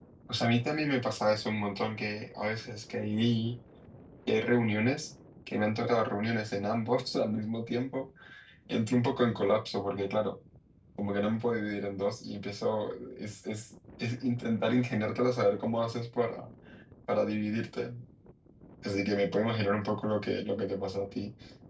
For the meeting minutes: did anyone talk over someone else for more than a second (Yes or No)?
No